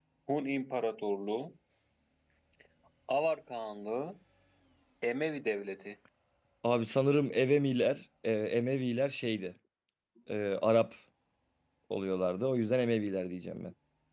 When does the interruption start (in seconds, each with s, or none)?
none